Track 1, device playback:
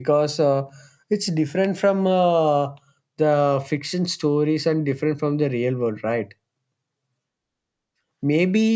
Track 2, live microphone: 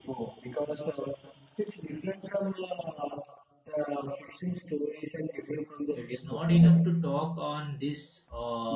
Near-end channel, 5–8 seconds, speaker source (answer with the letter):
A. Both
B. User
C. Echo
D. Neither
A